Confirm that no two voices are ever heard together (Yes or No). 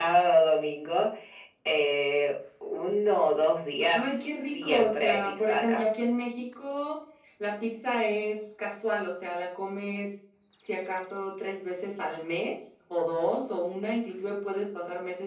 No